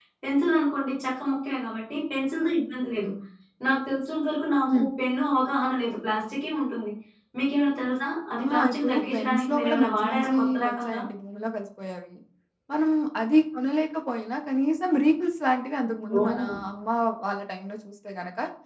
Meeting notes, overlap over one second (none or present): present